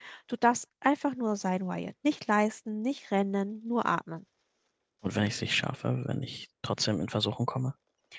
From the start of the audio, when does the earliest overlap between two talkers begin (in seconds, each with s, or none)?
none